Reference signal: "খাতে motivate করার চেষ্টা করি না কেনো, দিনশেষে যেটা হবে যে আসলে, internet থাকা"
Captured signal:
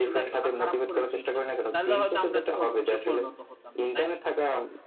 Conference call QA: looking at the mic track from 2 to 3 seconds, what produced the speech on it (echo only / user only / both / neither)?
both